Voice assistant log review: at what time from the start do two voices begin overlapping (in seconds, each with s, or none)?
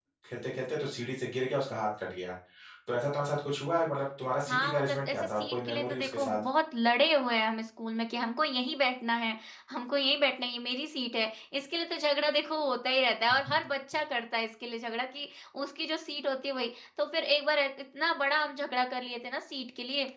4.5 s